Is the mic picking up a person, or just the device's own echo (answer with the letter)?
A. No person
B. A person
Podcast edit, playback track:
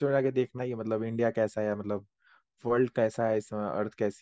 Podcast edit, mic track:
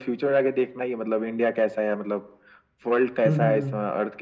B